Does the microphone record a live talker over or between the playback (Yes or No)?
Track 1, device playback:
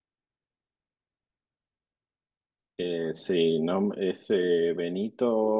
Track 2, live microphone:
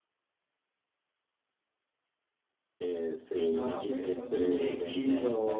Yes